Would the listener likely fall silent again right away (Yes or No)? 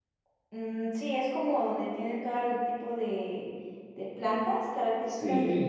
No